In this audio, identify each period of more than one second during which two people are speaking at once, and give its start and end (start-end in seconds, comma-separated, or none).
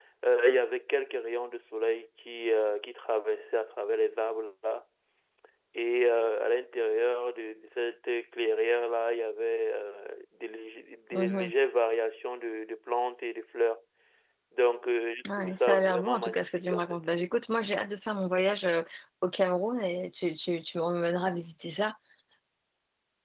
15.4-17.0